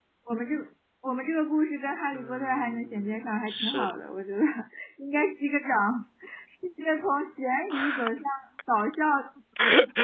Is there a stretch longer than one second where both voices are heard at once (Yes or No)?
Yes